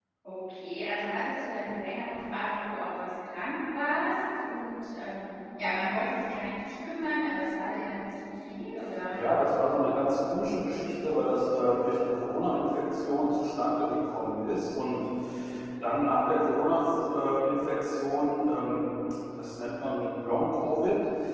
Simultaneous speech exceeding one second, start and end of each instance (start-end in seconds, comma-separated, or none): none